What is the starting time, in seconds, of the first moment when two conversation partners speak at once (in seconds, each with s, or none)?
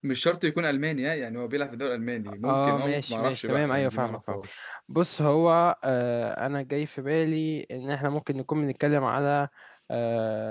2.4 s